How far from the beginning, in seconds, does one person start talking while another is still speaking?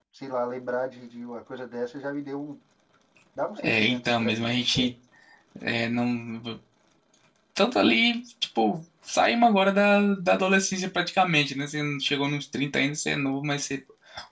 3.6 s

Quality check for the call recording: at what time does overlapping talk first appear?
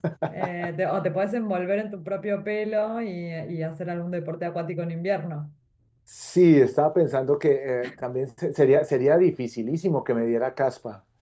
none

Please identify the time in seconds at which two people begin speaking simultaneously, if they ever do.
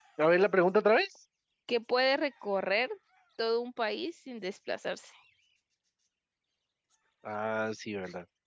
none

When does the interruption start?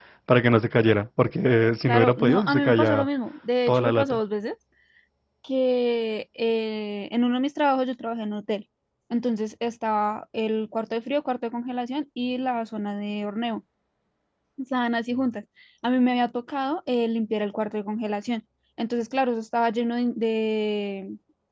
1.9 s

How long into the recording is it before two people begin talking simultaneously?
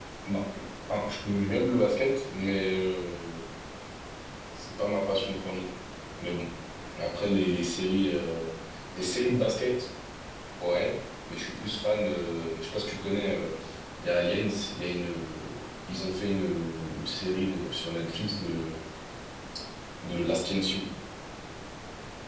none

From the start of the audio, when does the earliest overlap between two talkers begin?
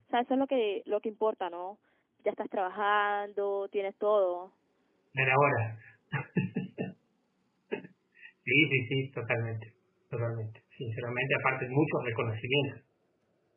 none

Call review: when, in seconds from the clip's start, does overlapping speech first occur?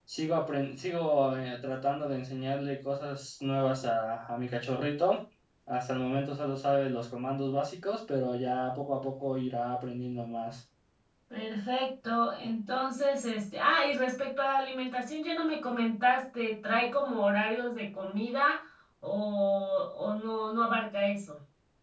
none

